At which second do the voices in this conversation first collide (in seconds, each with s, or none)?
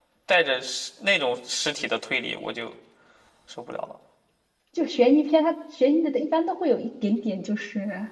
none